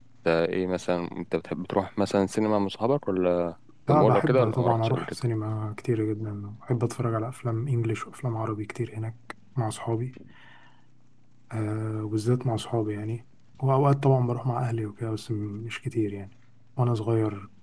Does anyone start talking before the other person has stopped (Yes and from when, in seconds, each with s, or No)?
Yes, from 3.9 s